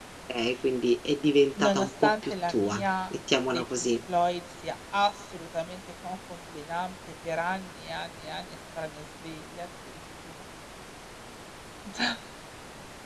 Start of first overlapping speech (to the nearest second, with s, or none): 2 s